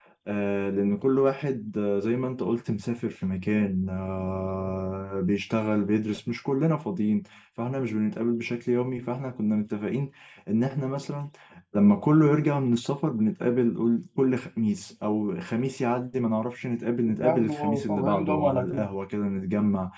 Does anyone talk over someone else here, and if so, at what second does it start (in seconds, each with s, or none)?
17.1 s